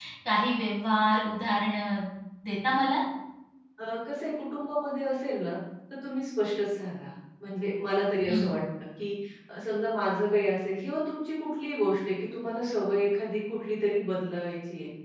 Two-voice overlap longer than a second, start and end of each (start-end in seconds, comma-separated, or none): none